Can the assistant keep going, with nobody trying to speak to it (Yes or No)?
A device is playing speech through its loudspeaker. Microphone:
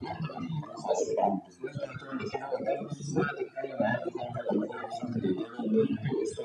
Yes